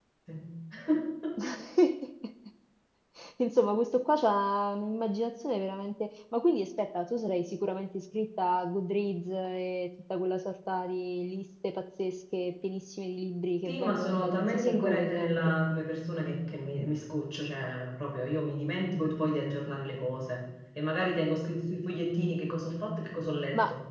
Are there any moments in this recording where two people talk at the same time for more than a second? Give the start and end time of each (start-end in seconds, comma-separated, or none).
13.7-15.4